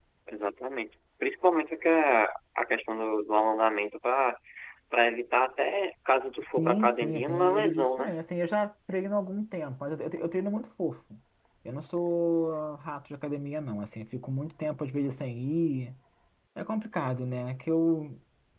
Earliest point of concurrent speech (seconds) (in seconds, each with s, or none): 6.6 s